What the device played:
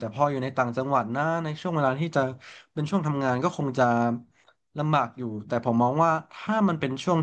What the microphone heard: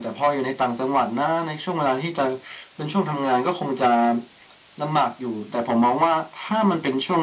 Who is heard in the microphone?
echo only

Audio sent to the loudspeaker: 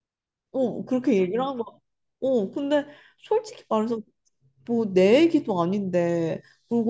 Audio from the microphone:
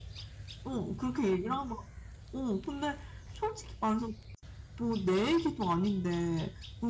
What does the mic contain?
echo only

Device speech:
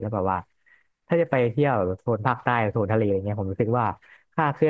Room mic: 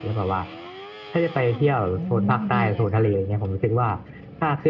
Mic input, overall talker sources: both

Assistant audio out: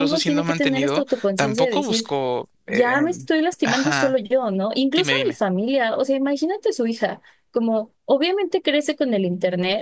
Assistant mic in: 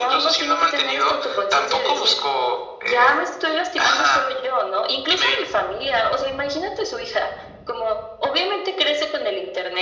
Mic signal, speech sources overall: echo only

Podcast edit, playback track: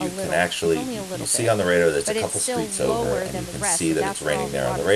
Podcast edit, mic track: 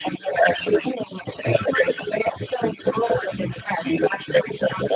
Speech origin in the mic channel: echo only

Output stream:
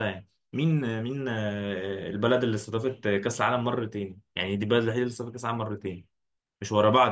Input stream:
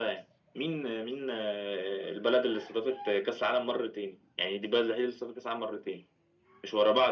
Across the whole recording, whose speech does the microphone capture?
echo only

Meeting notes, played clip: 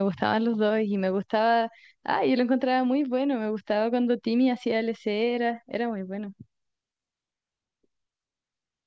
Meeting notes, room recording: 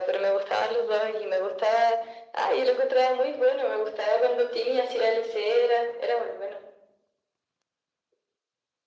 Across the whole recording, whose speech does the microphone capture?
echo only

